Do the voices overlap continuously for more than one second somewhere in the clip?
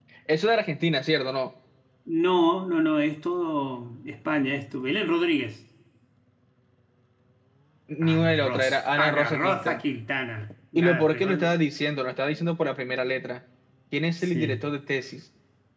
Yes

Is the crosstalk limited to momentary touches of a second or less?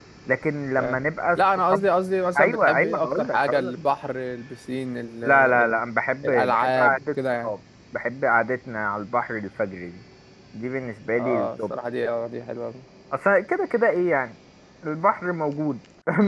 No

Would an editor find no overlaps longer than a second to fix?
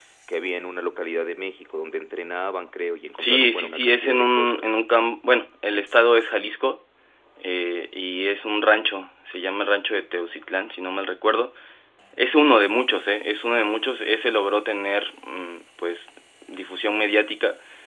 No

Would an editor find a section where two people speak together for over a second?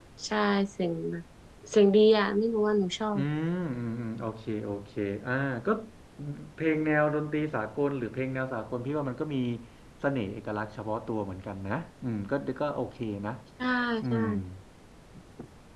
No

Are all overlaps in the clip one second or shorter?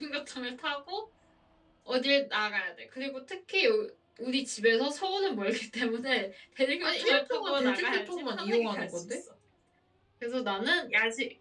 No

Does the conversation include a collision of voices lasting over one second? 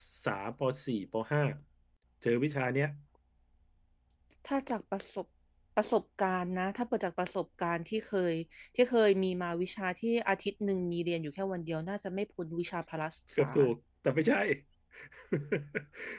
No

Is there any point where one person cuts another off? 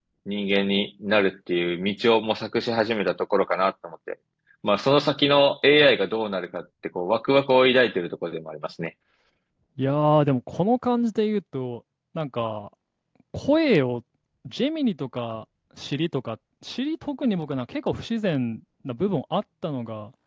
No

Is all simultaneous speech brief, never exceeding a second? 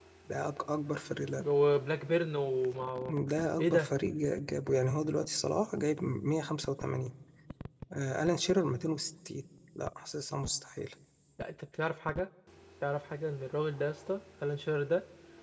Yes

